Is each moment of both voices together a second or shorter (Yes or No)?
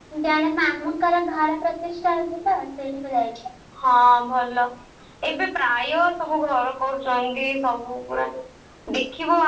Yes